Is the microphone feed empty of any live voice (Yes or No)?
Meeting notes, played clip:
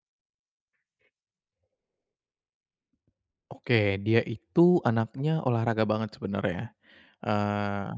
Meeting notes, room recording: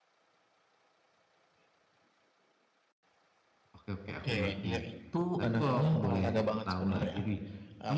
No